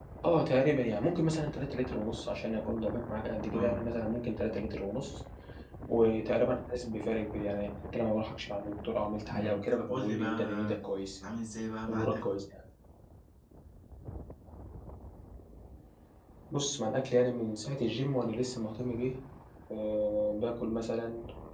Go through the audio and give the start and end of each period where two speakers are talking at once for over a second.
9.3-10.8

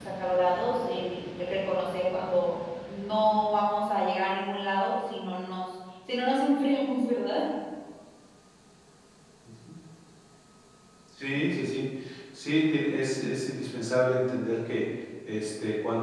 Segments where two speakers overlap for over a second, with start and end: none

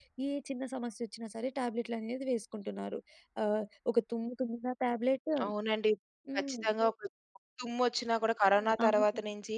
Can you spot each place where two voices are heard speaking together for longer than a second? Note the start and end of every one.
none

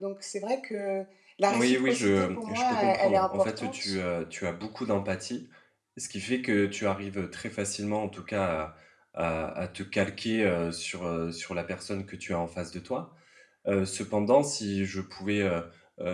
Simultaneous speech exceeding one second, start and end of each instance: 1.5-4.0

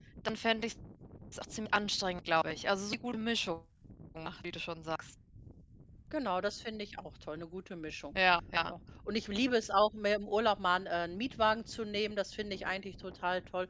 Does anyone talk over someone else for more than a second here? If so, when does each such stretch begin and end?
none

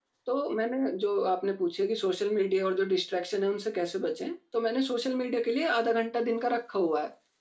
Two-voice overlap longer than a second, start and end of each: none

